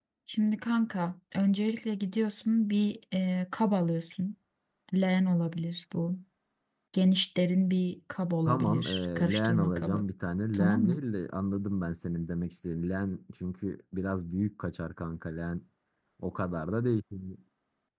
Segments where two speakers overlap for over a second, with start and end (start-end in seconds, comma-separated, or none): 8.5-10.0